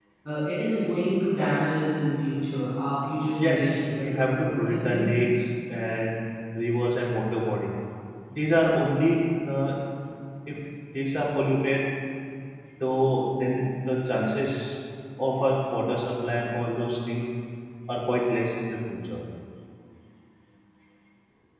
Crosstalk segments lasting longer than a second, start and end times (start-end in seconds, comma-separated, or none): 3.4-5.1